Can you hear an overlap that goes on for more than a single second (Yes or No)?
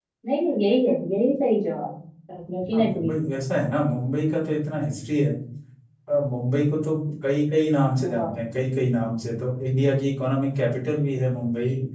No